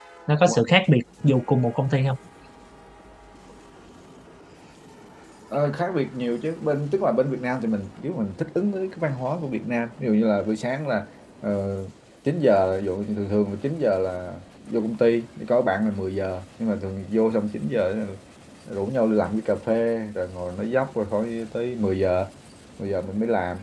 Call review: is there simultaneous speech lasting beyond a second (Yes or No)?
No